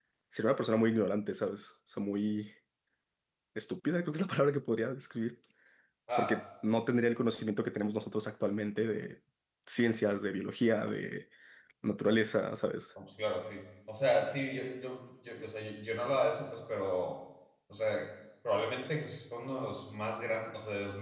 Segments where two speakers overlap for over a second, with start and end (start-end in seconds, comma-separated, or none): none